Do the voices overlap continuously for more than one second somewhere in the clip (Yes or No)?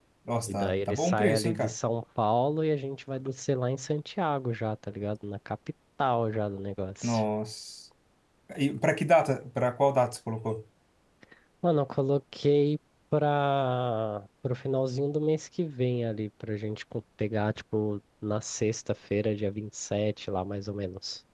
Yes